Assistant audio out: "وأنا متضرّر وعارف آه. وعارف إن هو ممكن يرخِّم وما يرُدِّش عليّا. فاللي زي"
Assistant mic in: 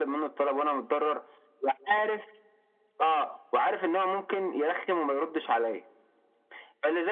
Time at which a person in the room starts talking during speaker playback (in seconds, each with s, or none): none